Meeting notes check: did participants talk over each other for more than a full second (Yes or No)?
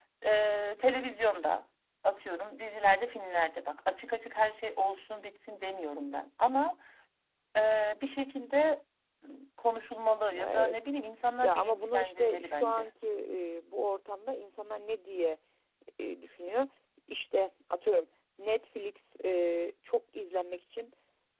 Yes